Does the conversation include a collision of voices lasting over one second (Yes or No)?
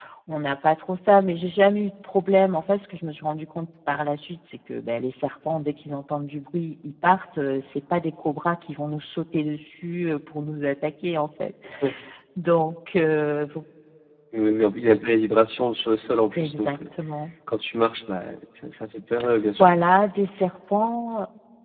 No